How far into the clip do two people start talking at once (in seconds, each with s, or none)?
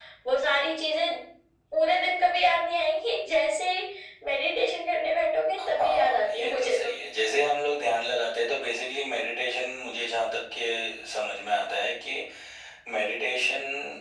5.6 s